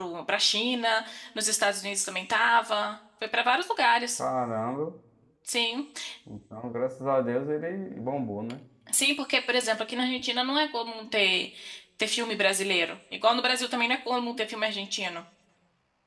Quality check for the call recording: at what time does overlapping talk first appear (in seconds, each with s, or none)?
none